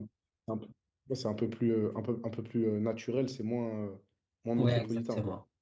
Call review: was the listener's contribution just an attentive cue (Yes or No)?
No